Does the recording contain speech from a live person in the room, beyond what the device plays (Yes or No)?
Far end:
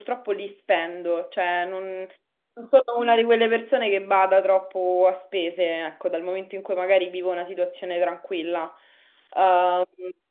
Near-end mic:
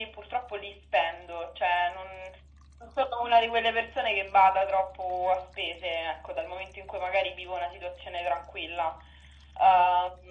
No